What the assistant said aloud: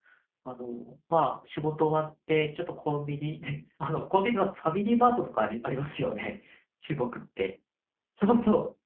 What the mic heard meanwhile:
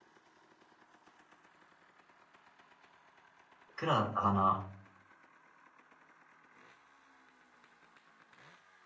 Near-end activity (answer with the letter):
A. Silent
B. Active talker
B